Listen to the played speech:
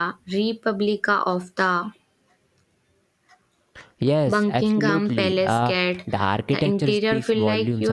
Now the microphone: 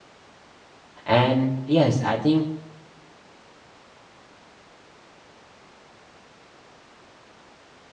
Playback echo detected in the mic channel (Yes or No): No